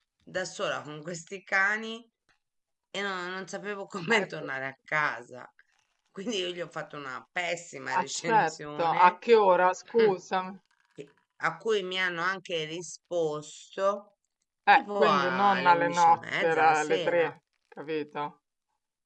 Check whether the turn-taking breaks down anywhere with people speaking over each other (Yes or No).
Yes